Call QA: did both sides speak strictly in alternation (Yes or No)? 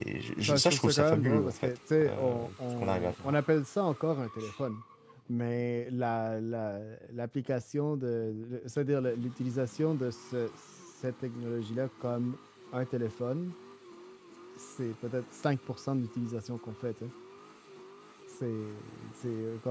No